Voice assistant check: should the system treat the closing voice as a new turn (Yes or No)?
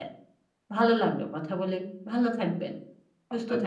Yes